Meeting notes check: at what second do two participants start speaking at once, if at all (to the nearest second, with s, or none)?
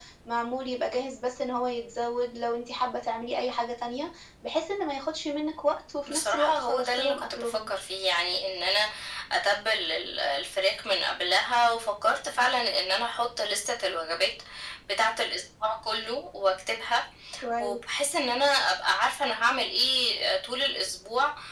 6 s